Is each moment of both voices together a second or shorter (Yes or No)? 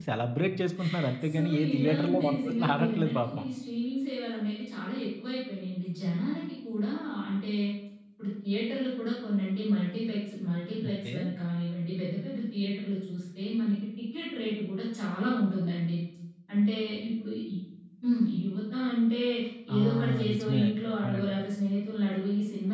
No